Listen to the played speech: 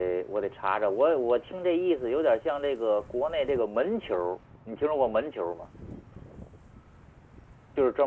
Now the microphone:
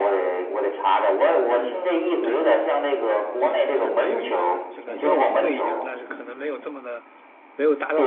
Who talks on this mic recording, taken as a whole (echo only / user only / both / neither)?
both